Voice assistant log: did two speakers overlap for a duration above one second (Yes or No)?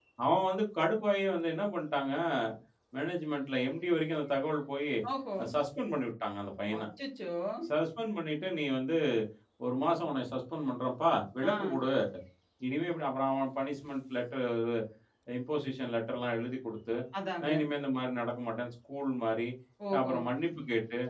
No